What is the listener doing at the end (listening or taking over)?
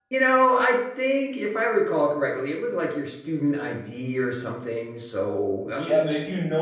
taking over